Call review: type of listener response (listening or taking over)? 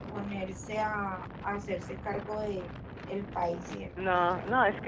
taking over